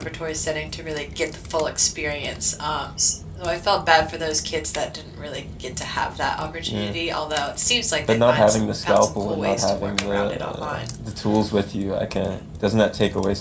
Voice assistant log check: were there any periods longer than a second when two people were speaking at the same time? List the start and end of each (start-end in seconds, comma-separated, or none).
8.1-10.8